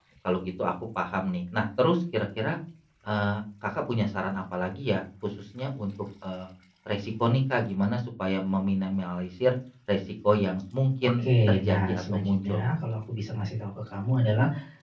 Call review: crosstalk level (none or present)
present